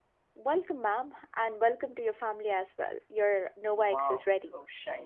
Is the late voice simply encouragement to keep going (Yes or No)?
No